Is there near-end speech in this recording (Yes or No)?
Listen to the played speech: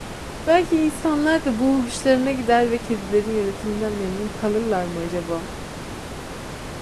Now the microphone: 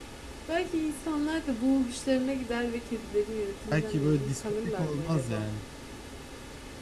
Yes